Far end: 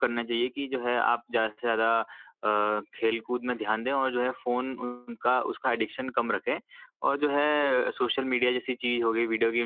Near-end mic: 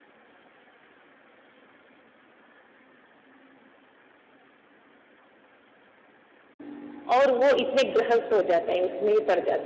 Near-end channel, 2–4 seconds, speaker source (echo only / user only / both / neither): neither